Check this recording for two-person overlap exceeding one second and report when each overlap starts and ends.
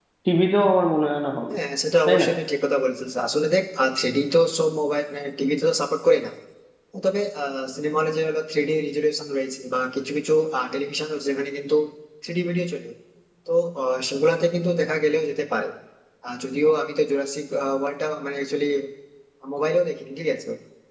none

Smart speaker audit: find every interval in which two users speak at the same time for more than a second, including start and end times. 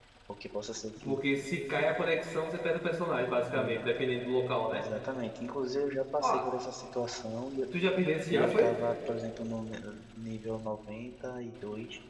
none

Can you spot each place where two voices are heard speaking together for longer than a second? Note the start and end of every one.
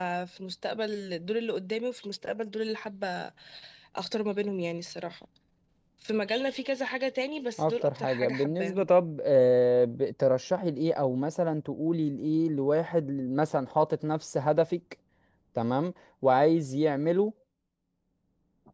7.6-8.9

